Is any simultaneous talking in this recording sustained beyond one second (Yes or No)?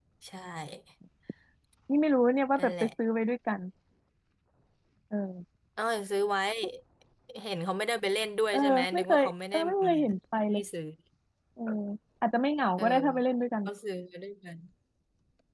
Yes